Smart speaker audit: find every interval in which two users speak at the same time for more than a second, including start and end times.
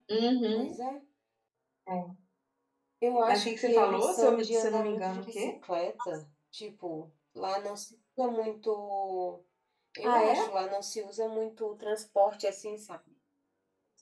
3.3-5.5

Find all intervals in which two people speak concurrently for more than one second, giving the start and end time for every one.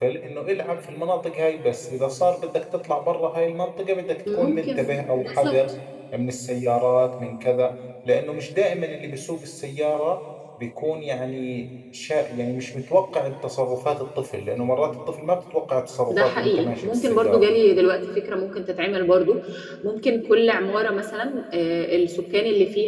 4.3-5.6, 16.1-17.5

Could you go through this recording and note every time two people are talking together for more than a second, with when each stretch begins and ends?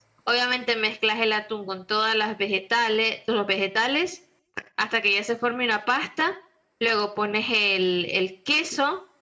none

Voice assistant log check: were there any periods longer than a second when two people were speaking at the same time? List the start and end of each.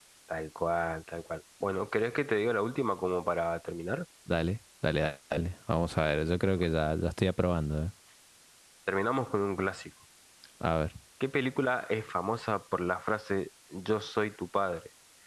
none

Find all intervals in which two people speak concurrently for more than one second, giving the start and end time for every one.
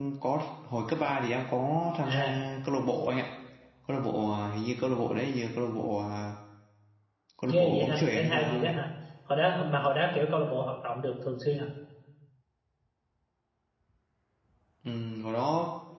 7.5-8.7

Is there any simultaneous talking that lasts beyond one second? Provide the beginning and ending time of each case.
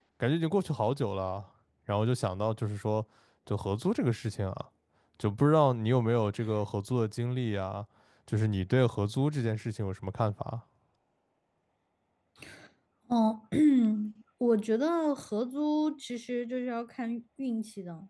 none

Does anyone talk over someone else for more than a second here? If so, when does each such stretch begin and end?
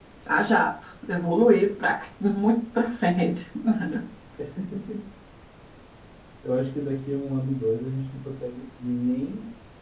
none

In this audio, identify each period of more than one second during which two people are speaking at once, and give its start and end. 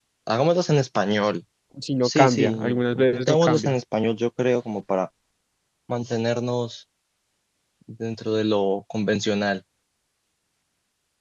2.0-3.7

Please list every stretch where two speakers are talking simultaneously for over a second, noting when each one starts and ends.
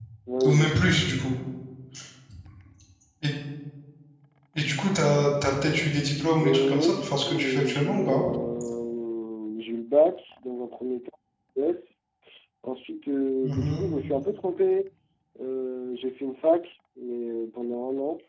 6.4-8.2

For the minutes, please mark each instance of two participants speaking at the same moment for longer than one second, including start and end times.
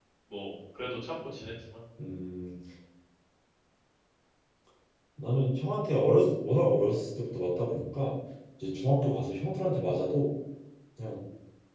none

